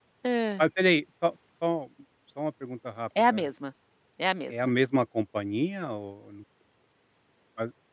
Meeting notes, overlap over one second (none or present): none